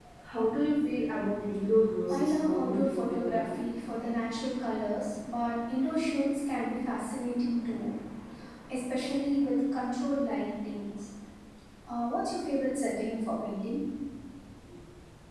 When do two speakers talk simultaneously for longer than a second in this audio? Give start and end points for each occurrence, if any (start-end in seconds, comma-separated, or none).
2.1-3.5